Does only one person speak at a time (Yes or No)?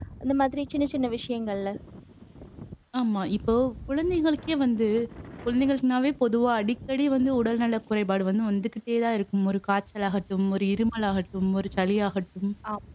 Yes